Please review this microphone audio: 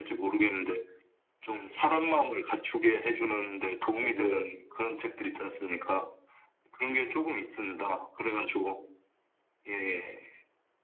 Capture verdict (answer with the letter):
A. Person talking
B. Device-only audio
A